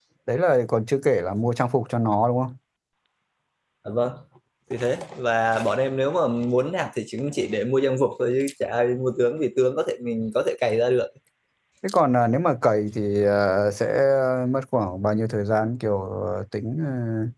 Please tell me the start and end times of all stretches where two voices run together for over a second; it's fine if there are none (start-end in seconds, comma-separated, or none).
none